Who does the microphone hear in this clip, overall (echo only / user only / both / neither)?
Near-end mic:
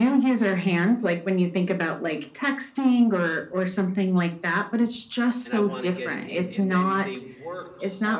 both